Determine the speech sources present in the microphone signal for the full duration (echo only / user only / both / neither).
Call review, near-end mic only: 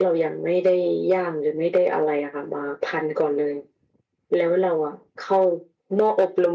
echo only